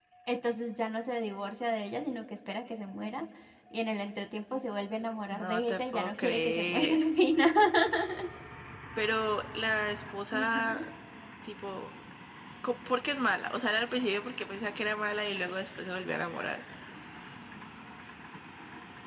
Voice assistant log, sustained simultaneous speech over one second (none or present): present